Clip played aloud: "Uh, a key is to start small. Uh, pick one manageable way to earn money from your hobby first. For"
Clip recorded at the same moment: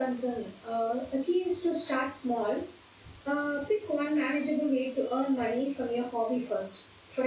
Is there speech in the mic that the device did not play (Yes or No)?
No